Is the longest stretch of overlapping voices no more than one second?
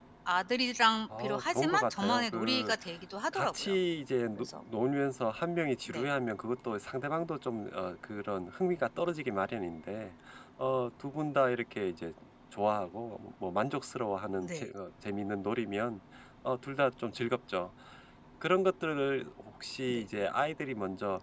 No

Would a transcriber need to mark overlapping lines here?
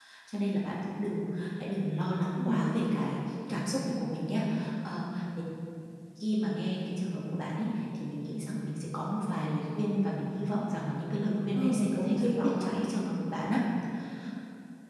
Yes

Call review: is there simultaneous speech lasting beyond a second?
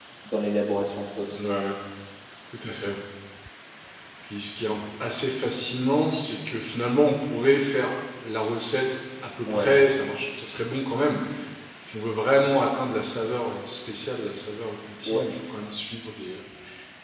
No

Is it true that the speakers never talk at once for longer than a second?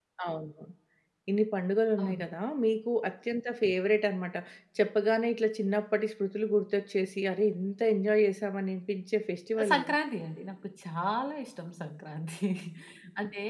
Yes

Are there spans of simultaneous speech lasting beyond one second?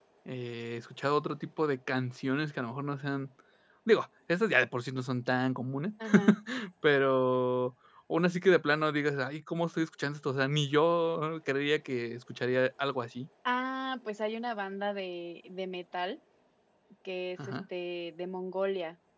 No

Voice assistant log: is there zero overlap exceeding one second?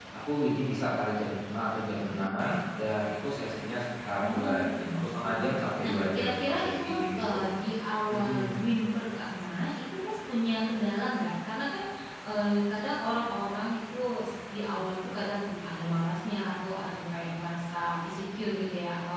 No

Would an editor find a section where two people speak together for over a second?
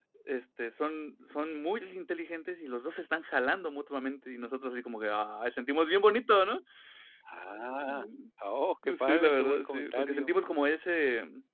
Yes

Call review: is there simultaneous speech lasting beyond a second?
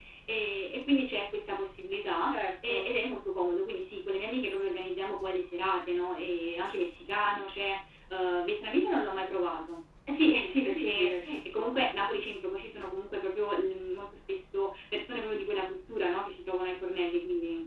Yes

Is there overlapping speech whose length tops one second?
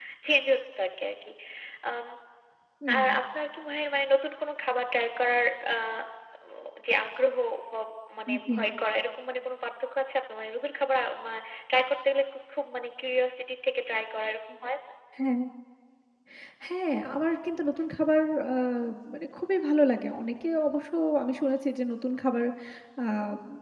No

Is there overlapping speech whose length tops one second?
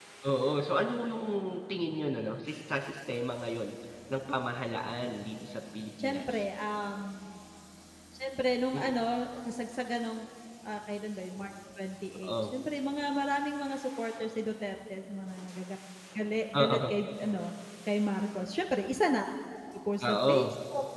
No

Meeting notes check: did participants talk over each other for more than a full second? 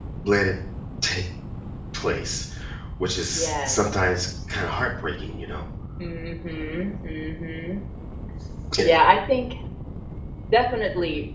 No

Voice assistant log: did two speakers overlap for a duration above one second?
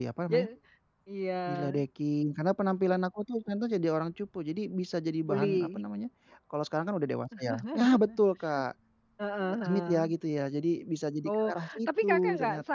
Yes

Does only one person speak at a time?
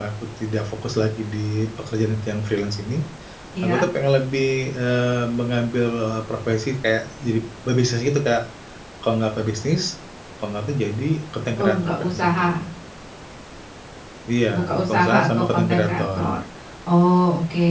No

